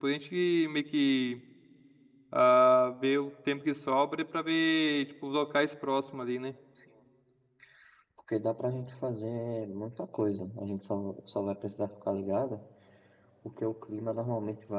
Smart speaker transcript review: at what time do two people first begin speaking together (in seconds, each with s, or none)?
none